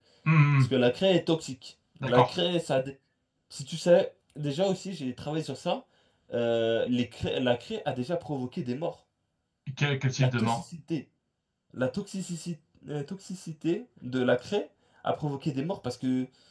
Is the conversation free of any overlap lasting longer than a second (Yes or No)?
Yes